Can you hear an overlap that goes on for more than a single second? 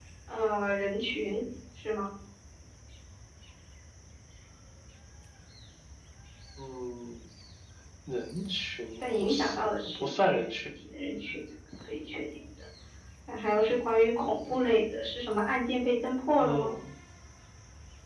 Yes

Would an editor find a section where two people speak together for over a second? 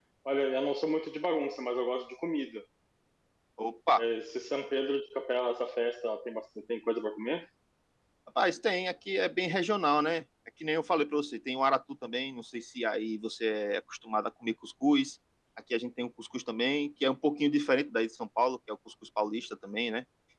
No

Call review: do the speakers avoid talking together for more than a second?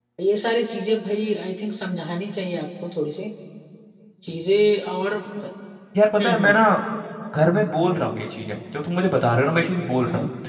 Yes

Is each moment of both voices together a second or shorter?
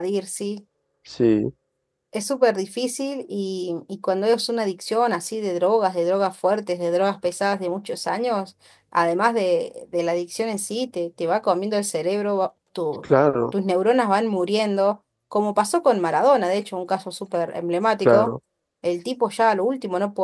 Yes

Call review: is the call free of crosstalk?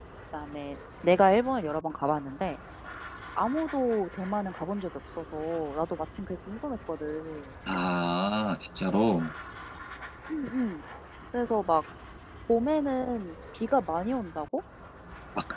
Yes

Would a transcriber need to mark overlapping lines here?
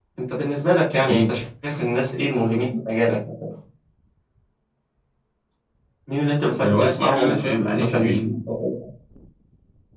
Yes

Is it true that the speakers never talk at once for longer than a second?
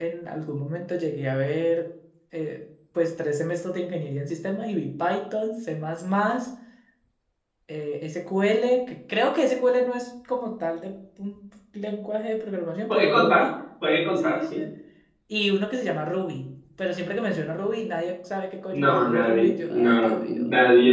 No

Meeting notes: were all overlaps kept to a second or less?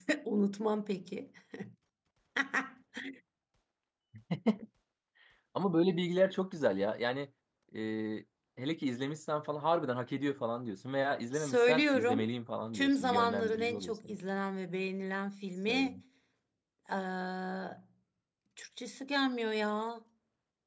No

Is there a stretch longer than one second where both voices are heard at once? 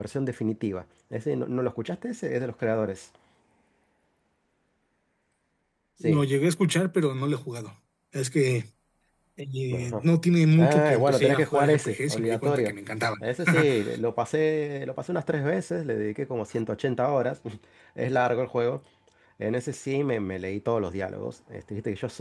Yes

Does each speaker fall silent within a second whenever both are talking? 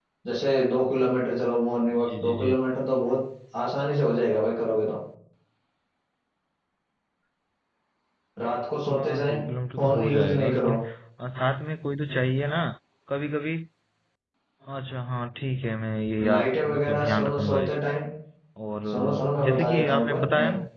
No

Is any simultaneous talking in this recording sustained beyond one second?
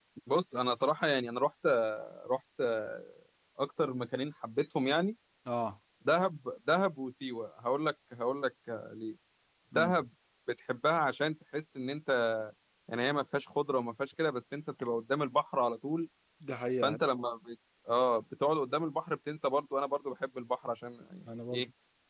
No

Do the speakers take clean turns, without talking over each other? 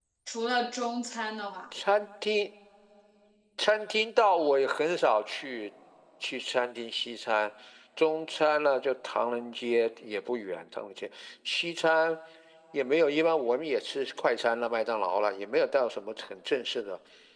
Yes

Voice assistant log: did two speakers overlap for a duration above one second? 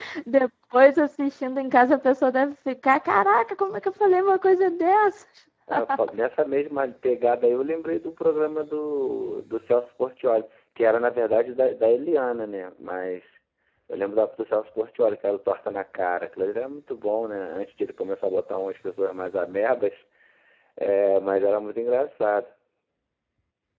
No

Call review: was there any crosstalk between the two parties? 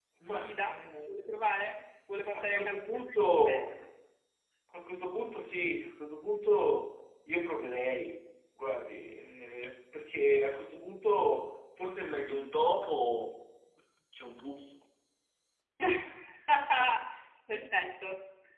Yes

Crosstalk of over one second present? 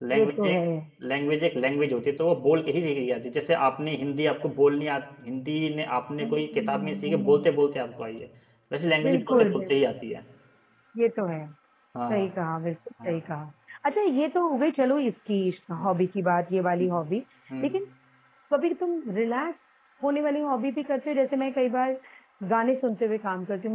Yes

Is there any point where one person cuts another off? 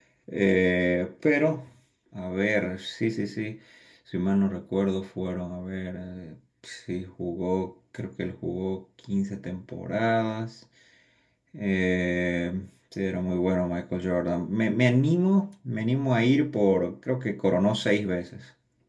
No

